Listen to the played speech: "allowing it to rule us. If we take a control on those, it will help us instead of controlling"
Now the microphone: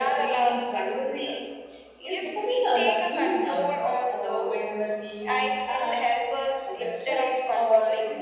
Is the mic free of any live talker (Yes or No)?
No